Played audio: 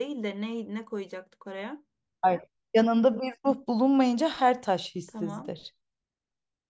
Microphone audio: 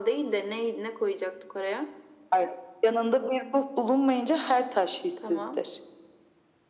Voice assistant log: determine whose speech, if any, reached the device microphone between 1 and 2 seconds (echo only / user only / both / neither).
echo only